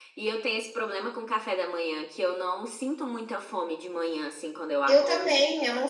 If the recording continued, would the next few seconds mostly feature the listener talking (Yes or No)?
Yes